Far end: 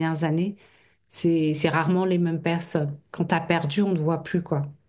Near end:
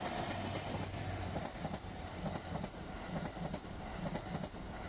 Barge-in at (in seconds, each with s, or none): none